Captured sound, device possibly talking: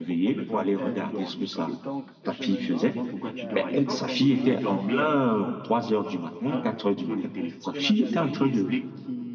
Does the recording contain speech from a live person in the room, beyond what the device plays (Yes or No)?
Yes